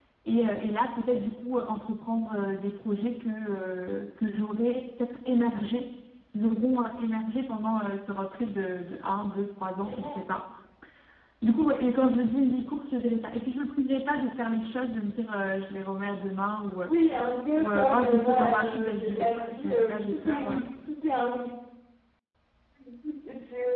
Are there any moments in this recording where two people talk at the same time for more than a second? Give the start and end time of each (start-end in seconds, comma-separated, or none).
17.5-20.6